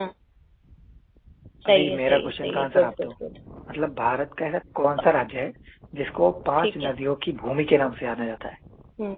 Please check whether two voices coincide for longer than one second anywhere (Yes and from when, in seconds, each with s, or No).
Yes, from 1.6 s